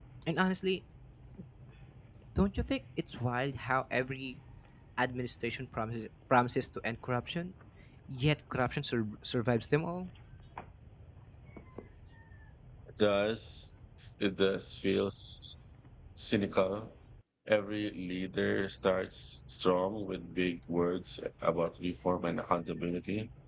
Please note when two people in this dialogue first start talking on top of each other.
none

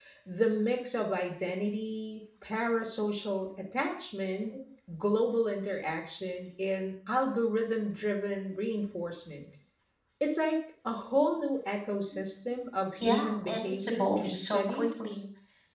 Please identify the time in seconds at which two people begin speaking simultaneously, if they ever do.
13.0 s

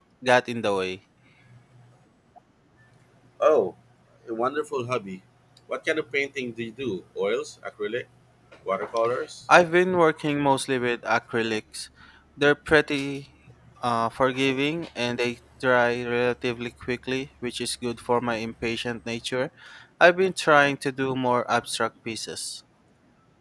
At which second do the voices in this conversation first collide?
none

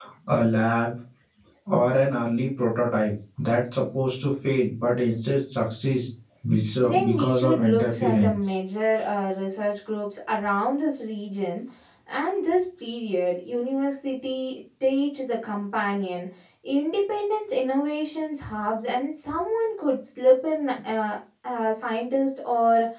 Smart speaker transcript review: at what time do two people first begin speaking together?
6.8 s

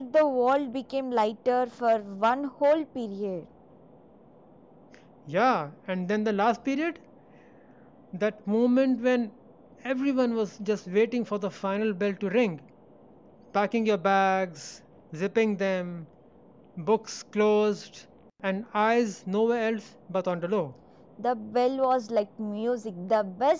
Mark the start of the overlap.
none

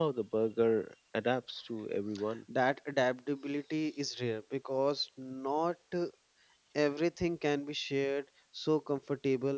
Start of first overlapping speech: none

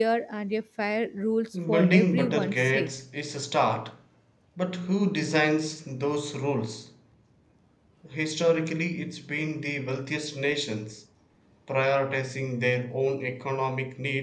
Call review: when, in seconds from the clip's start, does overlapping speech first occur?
1.5 s

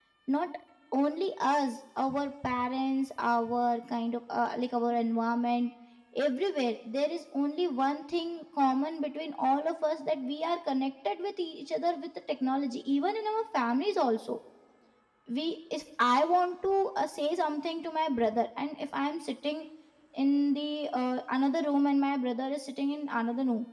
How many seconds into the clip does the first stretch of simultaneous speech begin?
none

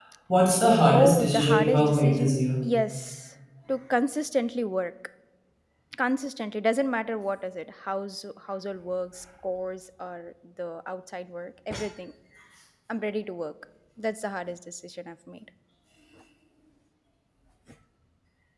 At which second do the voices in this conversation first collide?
0.9 s

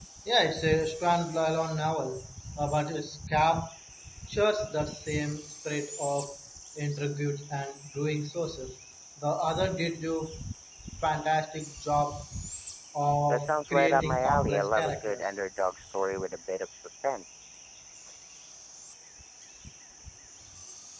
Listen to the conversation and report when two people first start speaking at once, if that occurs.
13.3 s

